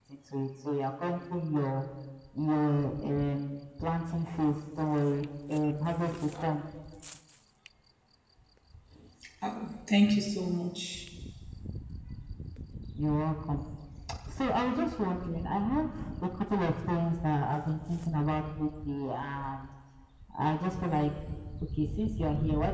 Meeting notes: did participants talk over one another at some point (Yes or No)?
No